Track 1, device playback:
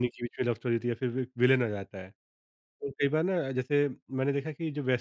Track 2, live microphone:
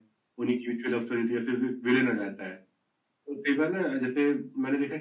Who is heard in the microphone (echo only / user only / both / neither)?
echo only